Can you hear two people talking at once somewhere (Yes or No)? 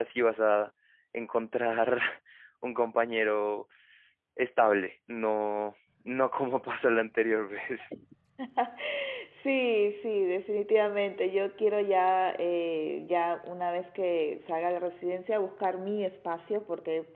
No